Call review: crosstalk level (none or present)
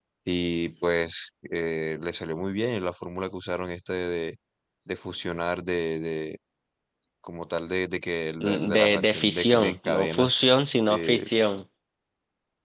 present